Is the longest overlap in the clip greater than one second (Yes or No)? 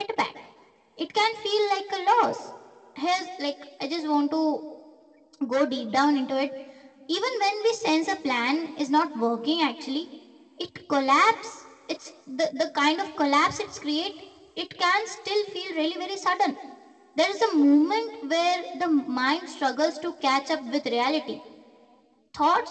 No